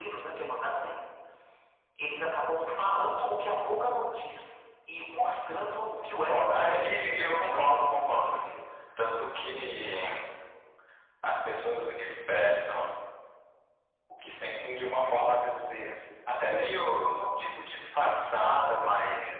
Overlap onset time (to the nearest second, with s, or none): 6 s